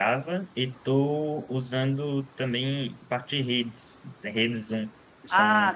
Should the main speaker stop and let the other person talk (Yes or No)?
Yes